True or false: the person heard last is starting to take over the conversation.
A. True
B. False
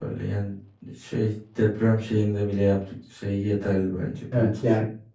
A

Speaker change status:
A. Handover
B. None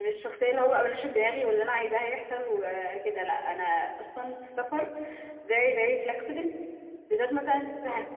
B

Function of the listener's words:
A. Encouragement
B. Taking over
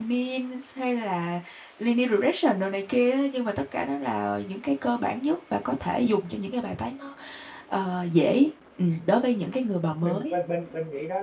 B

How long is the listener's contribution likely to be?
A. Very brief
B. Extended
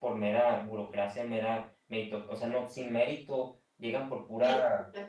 A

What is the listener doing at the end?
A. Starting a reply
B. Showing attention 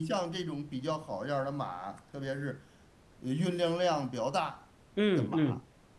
B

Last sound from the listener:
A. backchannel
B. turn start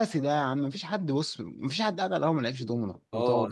B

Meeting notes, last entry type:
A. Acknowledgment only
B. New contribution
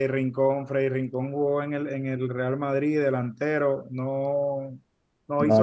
A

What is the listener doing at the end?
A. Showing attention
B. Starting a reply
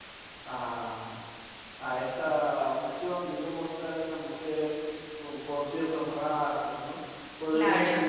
A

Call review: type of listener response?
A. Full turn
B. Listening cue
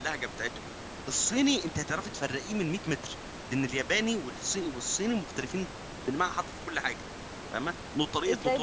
B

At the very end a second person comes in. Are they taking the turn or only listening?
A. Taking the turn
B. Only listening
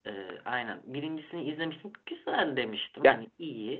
B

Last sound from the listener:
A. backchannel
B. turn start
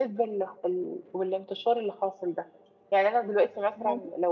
A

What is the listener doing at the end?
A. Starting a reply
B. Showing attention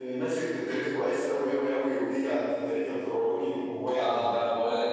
A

